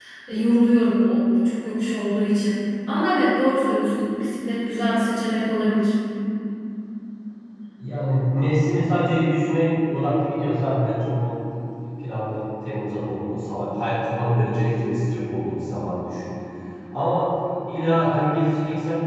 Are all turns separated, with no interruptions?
Yes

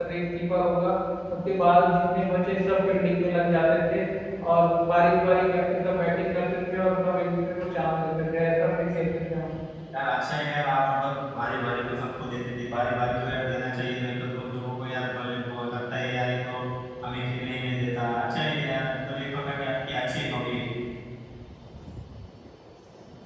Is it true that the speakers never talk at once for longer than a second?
Yes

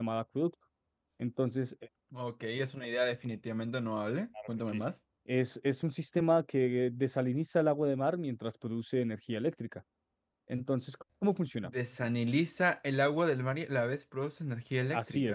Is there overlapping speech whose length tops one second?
No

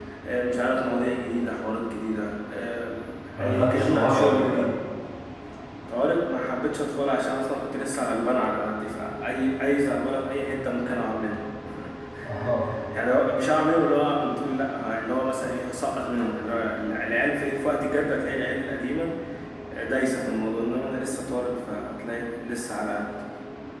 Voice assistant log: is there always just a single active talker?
No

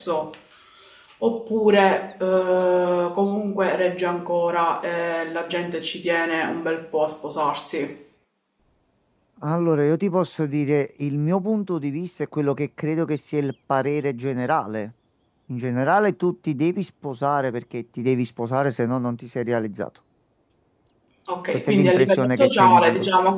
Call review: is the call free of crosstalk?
No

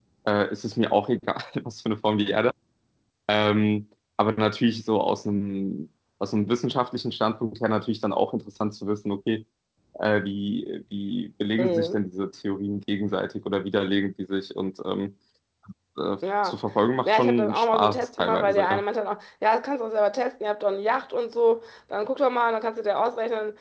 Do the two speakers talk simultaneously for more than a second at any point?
Yes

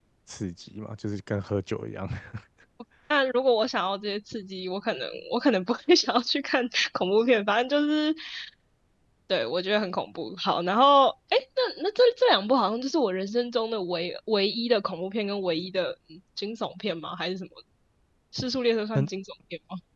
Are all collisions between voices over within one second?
Yes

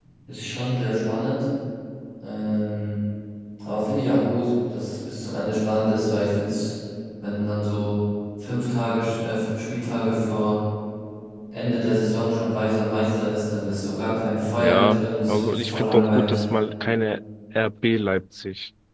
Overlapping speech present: Yes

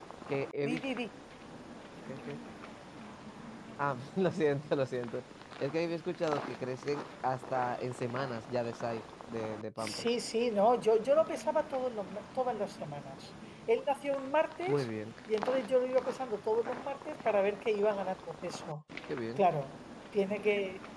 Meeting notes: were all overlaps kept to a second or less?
Yes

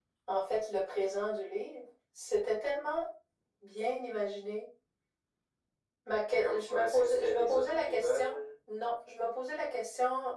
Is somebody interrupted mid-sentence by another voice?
Yes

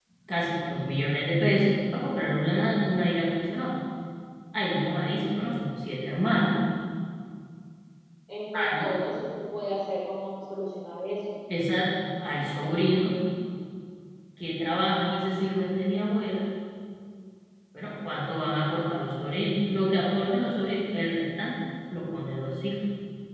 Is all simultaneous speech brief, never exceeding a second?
Yes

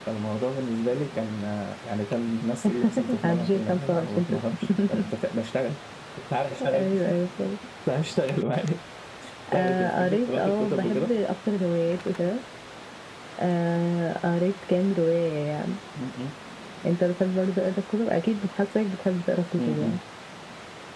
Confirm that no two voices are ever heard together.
No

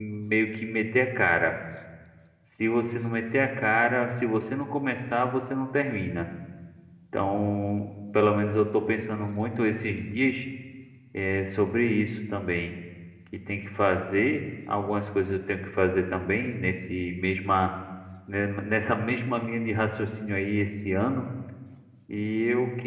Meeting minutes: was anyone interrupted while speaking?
No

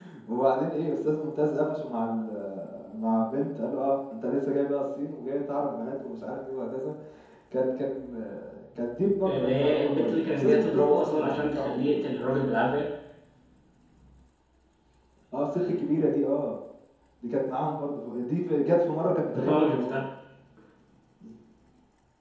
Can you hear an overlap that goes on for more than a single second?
Yes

